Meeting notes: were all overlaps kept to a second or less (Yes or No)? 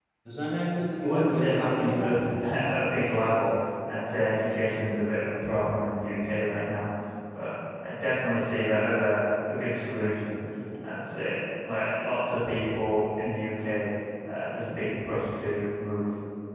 No